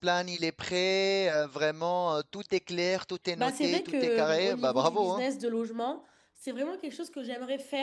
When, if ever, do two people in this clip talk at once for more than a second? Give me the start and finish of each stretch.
3.4-5.2

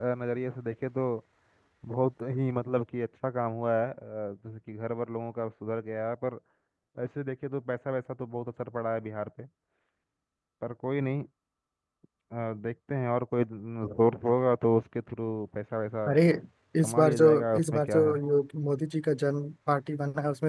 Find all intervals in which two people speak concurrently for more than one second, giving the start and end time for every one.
16.8-18.1

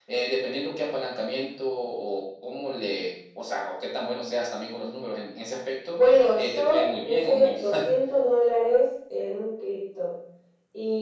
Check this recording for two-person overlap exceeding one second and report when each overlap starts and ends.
6.0-7.8

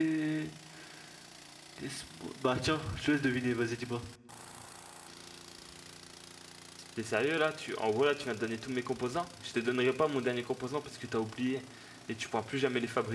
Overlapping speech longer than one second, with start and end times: none

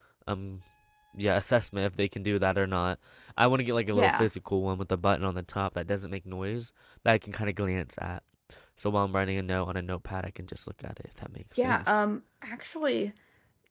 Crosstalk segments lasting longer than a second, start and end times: none

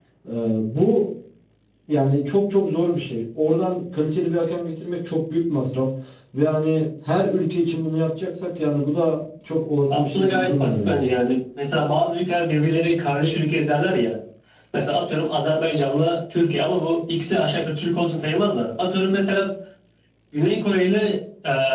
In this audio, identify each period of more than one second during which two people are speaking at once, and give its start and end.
9.9-11.1

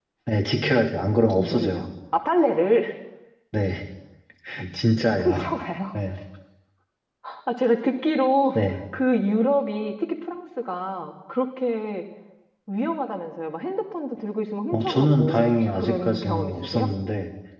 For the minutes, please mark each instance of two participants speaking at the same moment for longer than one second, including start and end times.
14.7-16.9

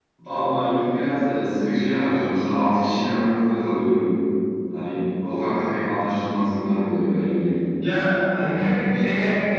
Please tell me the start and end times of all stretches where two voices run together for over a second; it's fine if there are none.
none

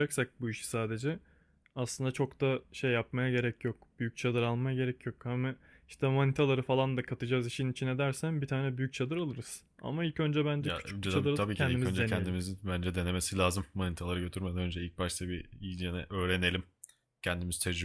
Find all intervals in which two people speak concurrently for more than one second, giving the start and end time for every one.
10.6-12.3

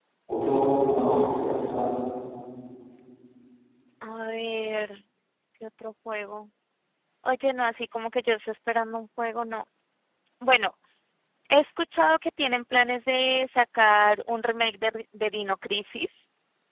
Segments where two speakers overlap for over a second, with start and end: none

